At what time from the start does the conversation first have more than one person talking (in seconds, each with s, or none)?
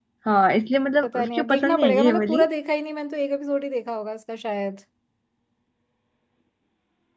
1.0 s